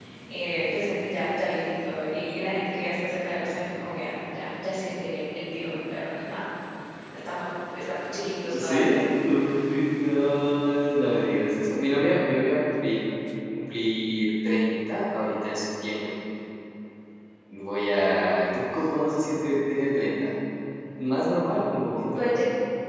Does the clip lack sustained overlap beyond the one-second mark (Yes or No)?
Yes